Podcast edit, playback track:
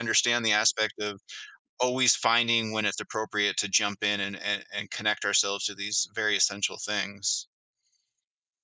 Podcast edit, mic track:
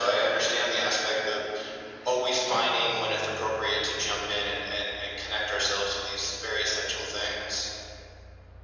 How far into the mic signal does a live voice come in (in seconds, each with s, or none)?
none